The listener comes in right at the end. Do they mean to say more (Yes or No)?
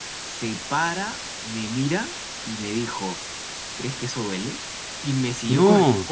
No